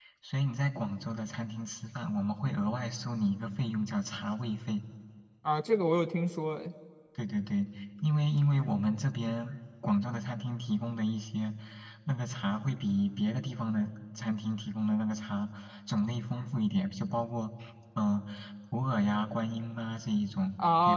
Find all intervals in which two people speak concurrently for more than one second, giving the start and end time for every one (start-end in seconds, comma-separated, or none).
none